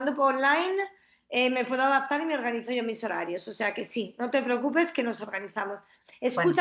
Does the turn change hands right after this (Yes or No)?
No